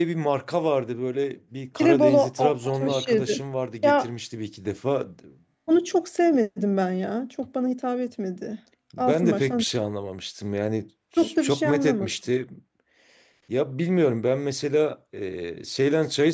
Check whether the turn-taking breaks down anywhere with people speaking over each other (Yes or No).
Yes